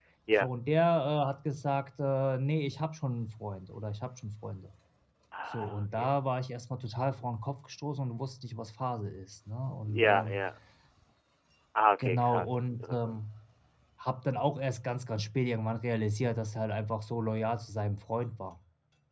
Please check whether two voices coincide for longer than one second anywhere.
Yes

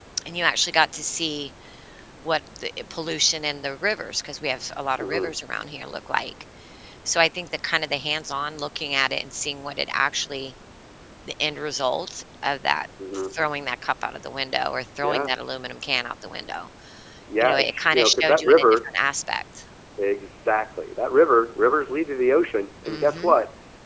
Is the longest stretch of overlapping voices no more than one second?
No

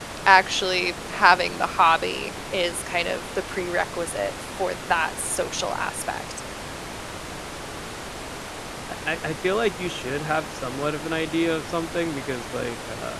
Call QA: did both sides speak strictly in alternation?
Yes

